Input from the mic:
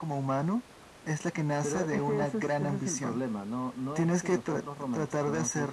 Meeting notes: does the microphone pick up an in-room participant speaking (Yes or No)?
No